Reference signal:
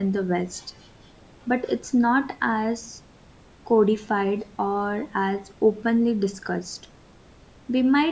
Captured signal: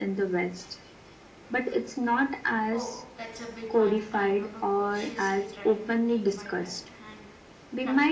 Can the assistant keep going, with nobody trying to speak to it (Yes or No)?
No